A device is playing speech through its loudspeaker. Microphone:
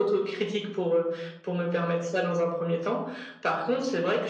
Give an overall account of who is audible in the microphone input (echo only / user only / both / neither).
echo only